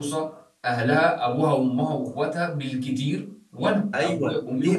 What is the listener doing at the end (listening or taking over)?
taking over